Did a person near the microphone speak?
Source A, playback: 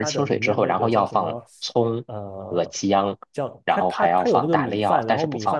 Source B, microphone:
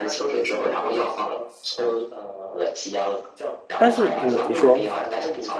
Yes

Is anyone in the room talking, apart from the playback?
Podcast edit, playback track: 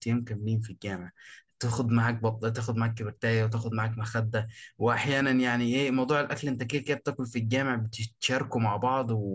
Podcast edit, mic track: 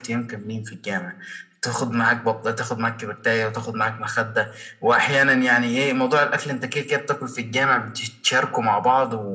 No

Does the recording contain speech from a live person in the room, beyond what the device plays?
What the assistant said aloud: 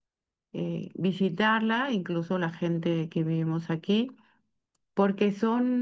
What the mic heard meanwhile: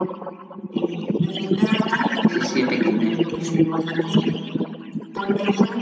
Yes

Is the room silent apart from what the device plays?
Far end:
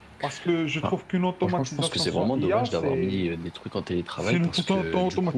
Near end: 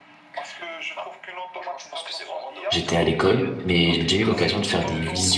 No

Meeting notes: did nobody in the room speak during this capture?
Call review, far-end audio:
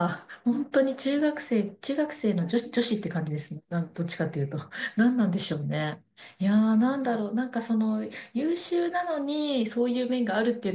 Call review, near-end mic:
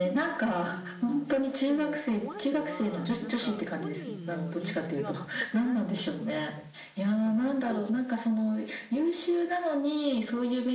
No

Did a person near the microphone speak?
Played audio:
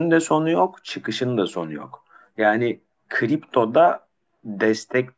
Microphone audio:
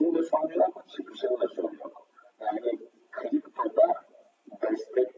No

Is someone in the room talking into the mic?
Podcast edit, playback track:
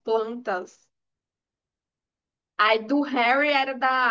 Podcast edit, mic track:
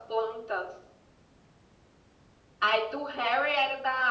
No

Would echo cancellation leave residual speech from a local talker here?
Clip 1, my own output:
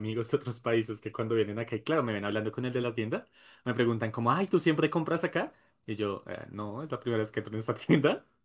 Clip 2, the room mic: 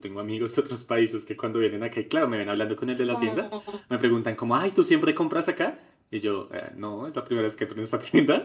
Yes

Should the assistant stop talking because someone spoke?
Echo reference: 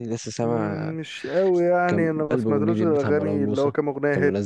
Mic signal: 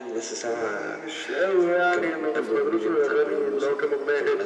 No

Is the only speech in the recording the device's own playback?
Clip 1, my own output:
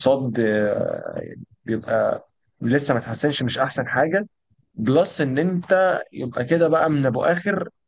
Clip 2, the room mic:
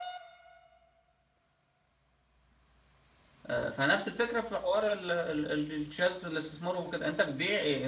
No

